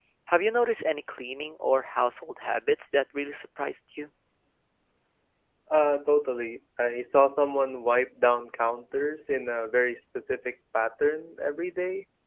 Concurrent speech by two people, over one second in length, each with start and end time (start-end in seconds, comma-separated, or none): none